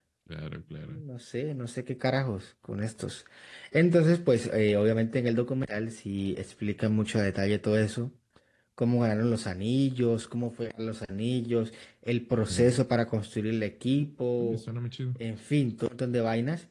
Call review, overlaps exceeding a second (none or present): none